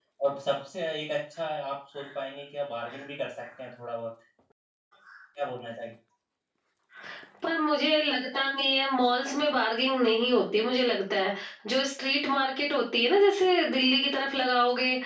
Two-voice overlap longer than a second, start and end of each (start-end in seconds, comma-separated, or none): none